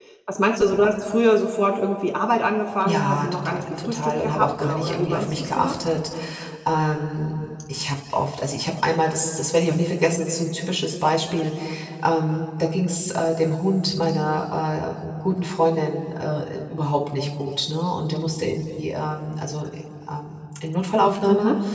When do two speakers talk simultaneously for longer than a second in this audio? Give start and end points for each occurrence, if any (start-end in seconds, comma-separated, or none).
2.8-5.8